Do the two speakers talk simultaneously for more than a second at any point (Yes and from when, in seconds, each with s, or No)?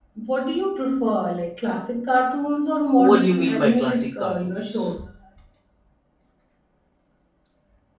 Yes, from 3.0 s